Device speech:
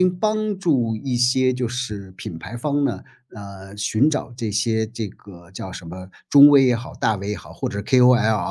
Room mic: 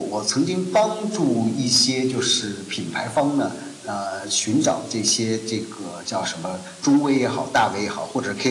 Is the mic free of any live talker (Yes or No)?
Yes